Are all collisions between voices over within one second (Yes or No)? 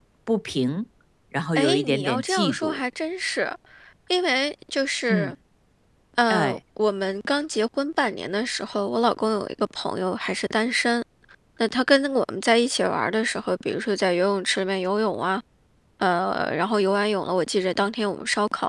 No